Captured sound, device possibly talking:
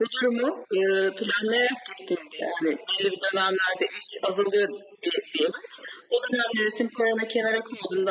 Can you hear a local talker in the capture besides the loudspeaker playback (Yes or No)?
No